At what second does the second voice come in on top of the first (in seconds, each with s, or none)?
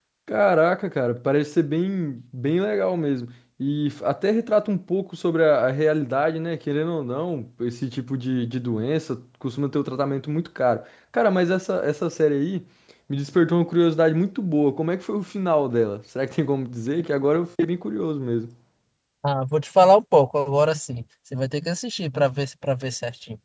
none